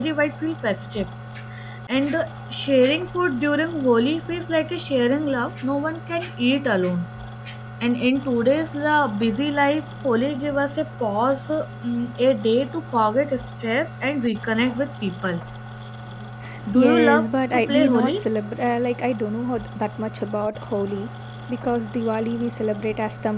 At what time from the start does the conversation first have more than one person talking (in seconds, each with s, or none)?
16.7 s